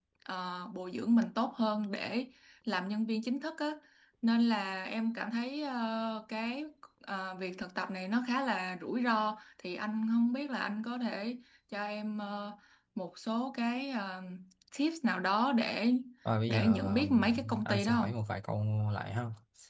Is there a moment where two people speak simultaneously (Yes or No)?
Yes